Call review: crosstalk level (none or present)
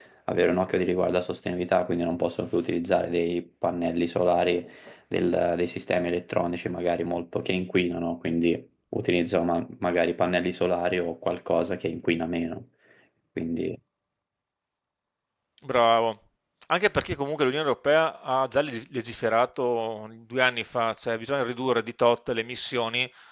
none